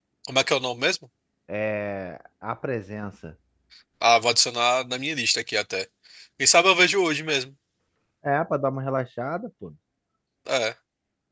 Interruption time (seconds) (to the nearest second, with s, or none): none